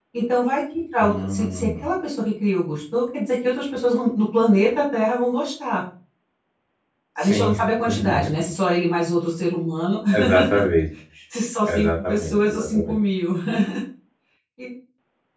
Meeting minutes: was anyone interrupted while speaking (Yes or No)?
Yes